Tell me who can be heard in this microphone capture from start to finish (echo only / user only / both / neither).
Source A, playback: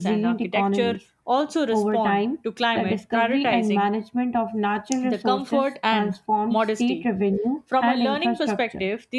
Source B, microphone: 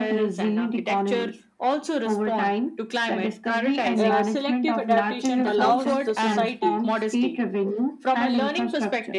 both